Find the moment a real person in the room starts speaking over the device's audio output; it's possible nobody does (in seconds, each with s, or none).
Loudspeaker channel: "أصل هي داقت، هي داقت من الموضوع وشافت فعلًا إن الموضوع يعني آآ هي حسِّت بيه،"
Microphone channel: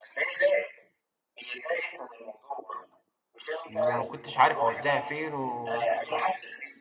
3.7 s